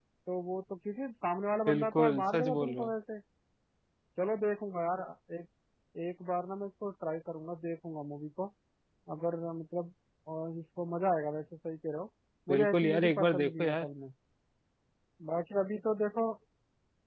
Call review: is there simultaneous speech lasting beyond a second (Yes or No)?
Yes